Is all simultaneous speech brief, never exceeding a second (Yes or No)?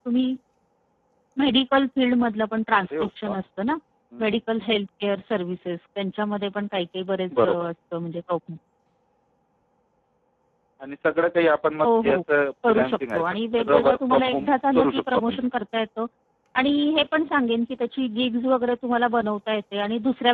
No